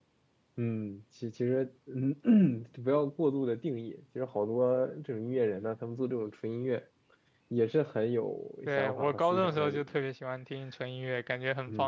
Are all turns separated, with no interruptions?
No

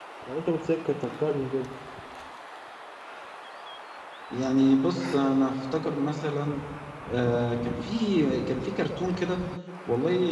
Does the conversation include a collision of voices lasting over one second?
No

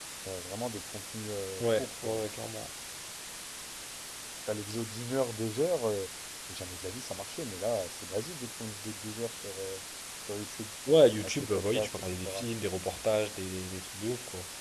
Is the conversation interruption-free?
No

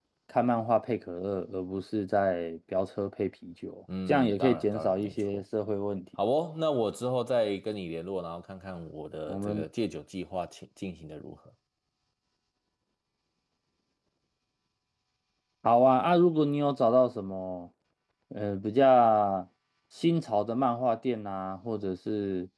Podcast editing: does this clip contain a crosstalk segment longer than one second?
Yes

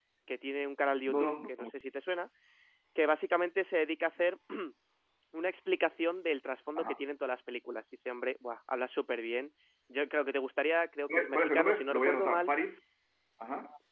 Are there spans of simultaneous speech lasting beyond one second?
Yes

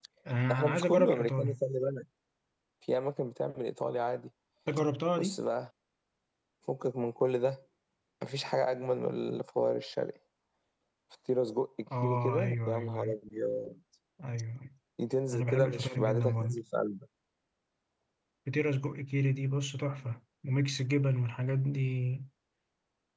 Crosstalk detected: Yes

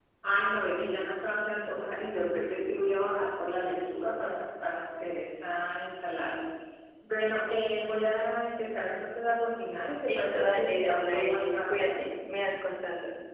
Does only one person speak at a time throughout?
No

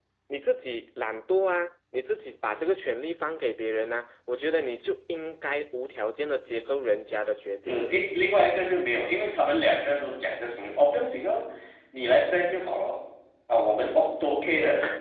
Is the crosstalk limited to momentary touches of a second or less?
Yes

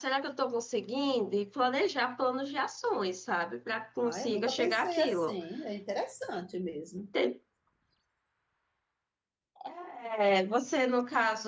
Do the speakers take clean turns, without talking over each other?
No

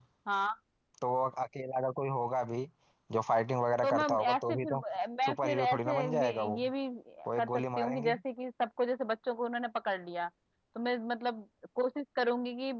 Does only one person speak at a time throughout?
No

